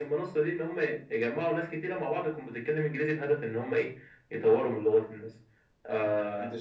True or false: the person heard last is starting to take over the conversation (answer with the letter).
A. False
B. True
B